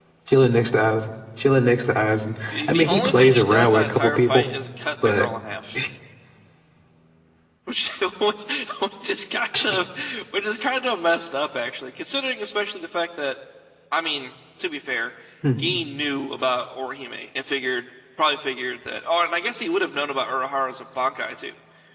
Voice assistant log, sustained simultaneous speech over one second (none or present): present